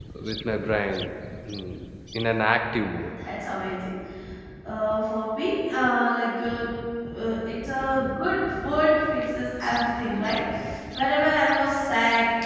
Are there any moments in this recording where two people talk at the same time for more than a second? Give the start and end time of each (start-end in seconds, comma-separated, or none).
none